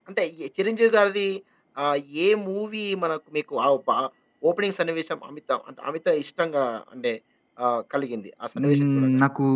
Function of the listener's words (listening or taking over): taking over